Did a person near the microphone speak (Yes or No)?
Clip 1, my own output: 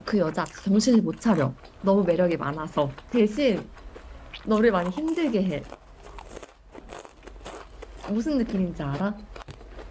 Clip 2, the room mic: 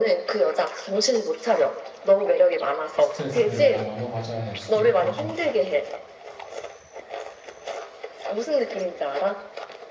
Yes